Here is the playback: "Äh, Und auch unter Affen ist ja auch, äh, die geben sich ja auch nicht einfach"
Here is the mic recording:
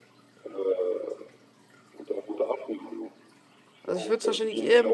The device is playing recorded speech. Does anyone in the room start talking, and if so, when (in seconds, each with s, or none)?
3.8 s